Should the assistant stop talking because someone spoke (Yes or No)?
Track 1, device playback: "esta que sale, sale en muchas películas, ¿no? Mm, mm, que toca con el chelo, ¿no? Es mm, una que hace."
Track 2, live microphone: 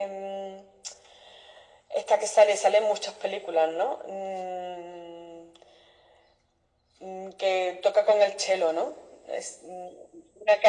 No